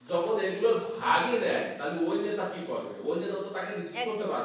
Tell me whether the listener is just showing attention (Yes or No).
Yes